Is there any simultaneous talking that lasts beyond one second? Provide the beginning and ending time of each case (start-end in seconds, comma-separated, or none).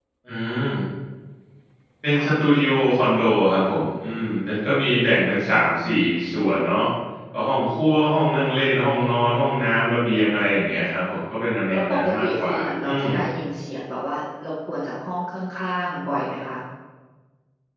11.7-13.1